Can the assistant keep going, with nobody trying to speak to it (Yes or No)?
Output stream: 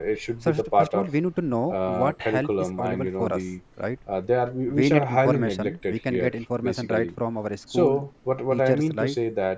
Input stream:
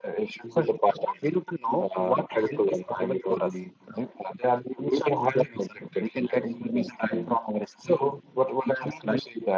Yes